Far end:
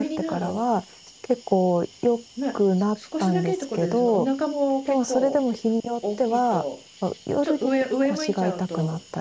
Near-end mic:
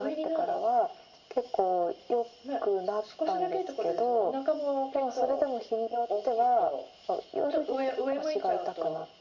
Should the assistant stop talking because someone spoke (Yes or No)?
No